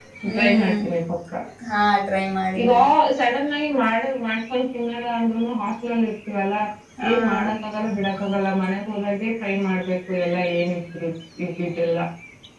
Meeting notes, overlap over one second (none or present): none